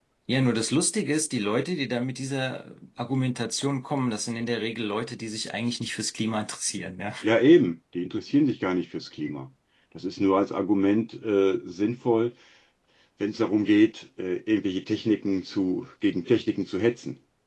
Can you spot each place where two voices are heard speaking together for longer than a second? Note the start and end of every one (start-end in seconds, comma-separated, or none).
none